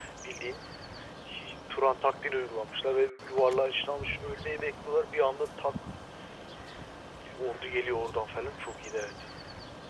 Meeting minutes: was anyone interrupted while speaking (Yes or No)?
No